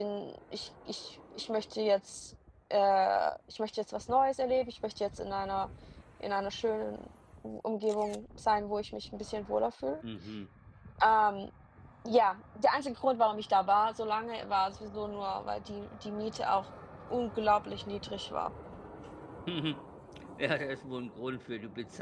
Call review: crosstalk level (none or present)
none